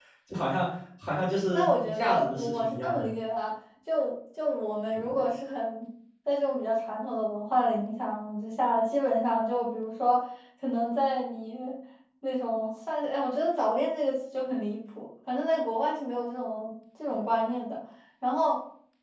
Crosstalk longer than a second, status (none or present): present